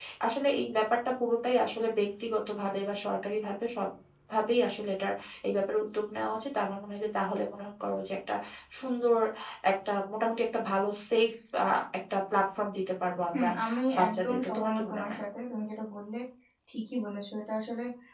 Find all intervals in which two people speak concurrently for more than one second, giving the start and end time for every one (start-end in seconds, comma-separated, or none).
14.0-15.2